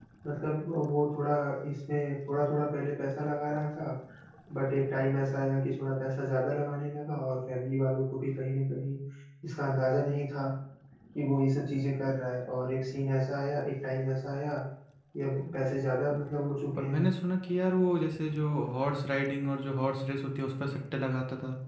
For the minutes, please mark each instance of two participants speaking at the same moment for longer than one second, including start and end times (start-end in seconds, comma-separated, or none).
none